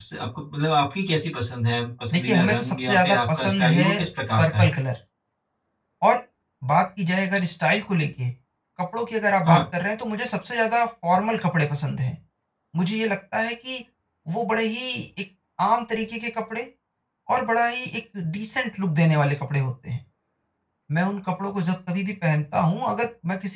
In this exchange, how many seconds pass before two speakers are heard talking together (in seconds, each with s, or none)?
2.1 s